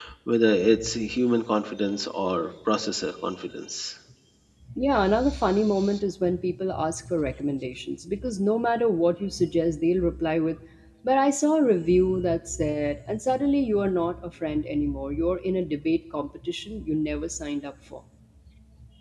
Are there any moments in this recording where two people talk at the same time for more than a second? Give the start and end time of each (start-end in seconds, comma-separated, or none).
none